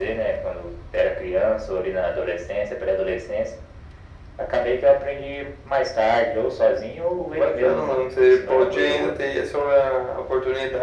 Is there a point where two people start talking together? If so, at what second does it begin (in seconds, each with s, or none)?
7.1 s